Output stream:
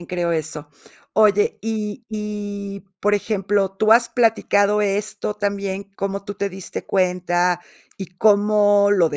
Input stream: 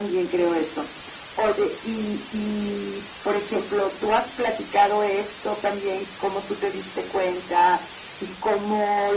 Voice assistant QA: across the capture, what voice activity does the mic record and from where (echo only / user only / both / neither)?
echo only